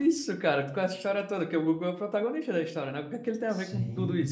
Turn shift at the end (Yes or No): Yes